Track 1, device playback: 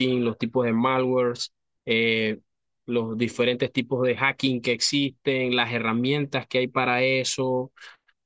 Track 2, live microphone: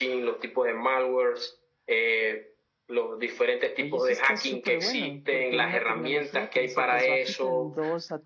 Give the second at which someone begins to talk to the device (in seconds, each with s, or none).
3.8 s